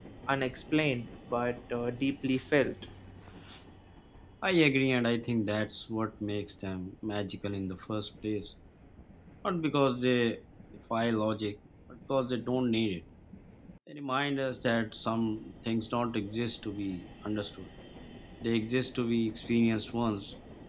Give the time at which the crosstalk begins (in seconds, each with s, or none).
none